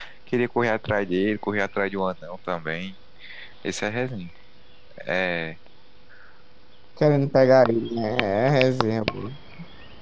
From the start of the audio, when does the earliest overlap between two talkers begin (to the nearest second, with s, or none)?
none